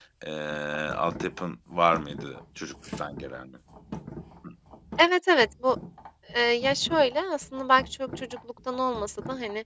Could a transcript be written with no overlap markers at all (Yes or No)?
Yes